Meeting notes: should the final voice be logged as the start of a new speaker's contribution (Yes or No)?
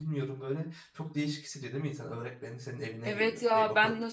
Yes